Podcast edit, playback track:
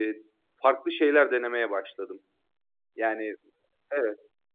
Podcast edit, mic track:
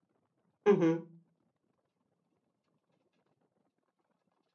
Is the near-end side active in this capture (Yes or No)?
Yes